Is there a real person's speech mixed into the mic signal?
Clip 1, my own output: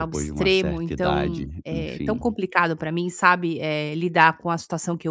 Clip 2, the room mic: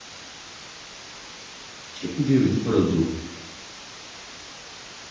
Yes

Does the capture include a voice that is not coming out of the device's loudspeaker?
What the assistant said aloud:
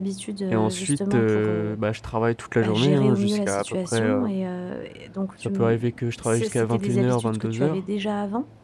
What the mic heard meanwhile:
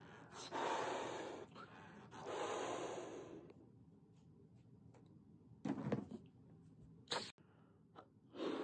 No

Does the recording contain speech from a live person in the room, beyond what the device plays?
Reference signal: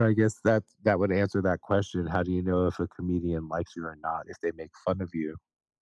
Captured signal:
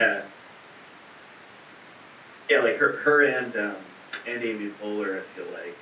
Yes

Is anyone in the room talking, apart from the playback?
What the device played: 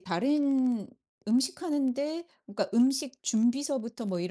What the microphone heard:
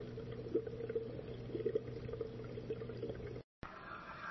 No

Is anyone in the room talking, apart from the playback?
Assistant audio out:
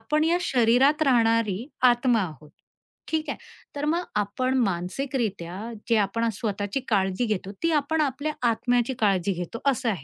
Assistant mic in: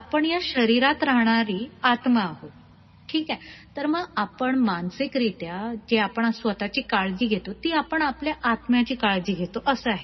No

